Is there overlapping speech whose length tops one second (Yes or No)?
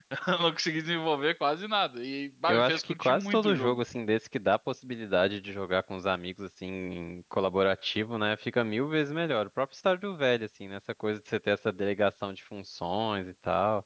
Yes